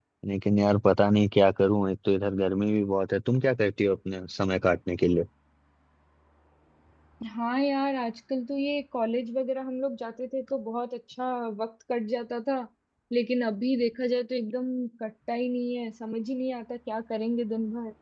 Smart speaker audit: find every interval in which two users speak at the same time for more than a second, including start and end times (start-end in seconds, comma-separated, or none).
none